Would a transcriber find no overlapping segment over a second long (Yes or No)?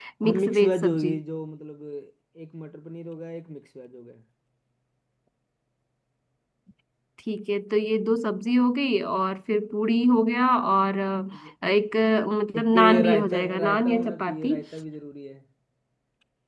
No